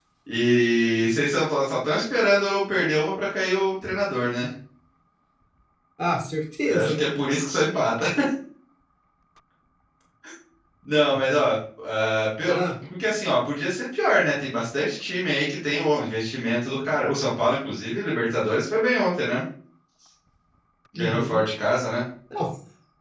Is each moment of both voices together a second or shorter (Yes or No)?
Yes